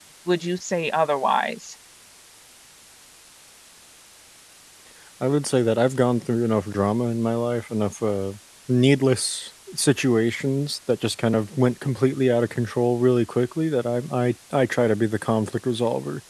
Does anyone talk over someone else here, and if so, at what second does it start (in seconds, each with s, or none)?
none